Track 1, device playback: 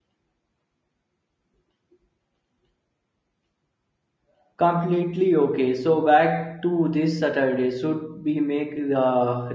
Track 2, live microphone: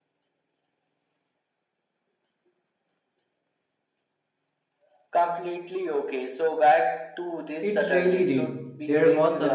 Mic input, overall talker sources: both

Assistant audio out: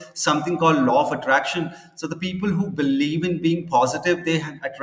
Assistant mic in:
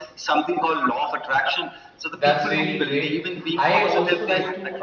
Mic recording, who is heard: both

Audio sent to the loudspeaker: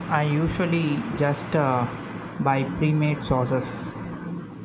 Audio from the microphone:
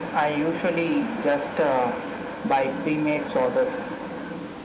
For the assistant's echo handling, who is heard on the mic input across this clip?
echo only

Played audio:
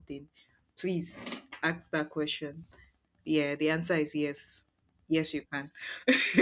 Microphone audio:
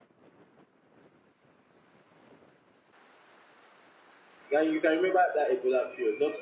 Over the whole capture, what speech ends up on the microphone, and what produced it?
user only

